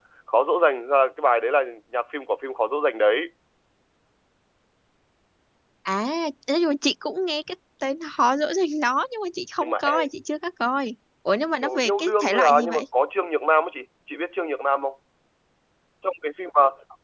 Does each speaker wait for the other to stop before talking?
No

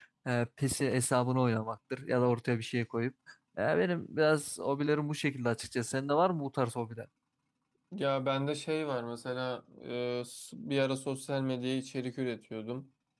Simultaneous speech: No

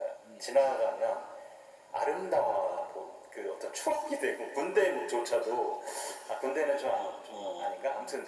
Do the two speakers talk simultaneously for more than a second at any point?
Yes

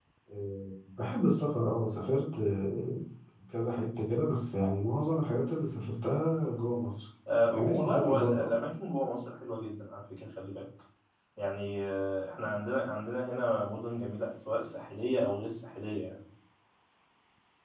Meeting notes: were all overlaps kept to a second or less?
No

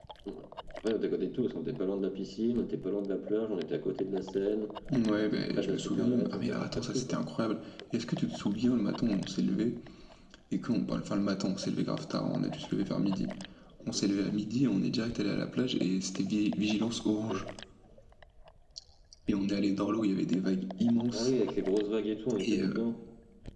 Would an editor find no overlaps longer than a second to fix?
No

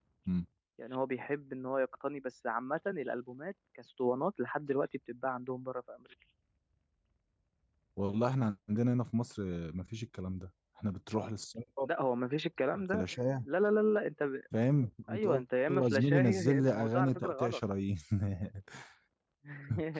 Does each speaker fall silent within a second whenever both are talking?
No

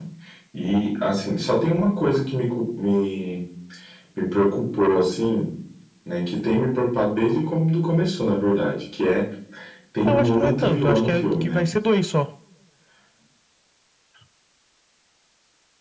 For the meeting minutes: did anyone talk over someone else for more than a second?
Yes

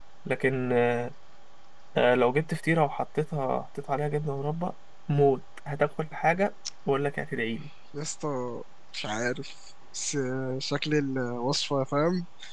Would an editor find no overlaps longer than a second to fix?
Yes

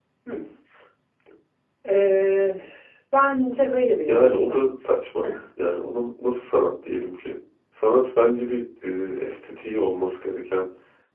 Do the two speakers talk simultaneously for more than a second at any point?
No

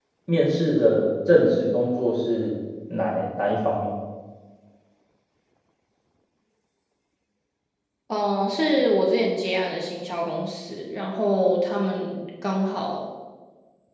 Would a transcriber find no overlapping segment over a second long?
Yes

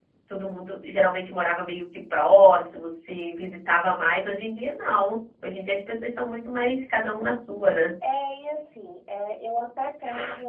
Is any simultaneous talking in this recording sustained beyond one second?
No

